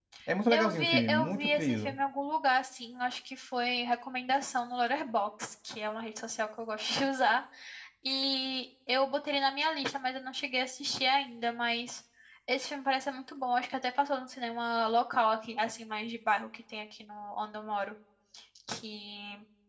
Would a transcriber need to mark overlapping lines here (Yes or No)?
Yes